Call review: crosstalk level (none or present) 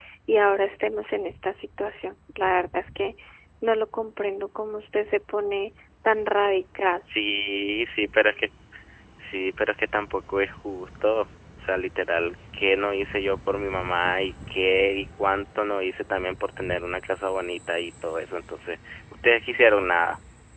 none